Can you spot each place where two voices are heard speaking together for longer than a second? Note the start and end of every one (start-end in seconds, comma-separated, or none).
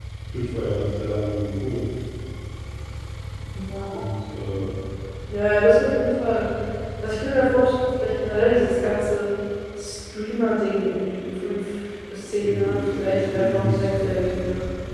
12.4-14.1